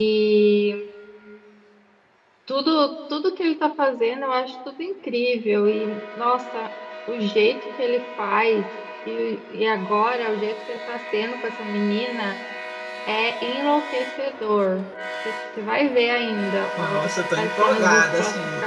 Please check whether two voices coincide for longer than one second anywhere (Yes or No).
Yes